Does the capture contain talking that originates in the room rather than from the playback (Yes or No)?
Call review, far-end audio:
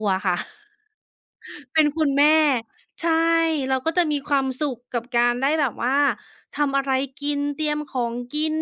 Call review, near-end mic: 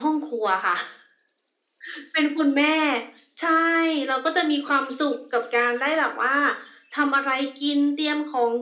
No